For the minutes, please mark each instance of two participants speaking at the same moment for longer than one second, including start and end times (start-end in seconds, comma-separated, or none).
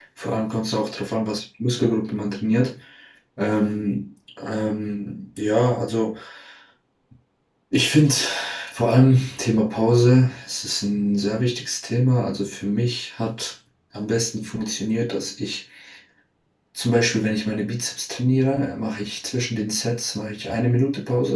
none